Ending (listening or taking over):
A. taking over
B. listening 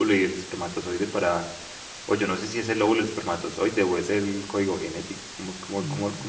A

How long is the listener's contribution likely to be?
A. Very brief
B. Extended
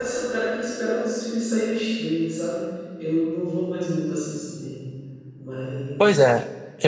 B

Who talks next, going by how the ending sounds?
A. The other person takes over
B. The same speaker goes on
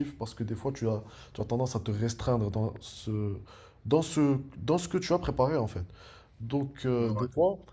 B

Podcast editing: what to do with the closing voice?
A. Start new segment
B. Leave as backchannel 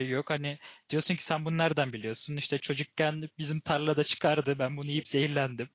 B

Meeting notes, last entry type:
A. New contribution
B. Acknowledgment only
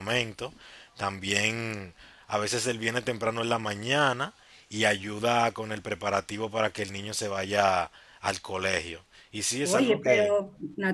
A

